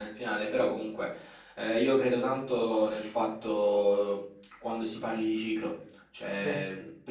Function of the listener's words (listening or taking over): listening